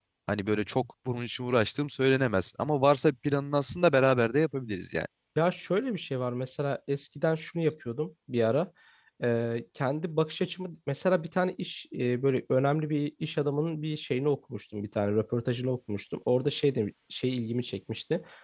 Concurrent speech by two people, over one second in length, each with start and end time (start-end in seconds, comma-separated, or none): none